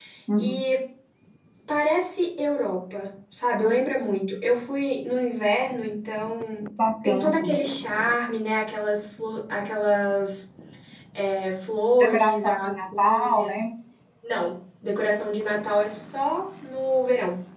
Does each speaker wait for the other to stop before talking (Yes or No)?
No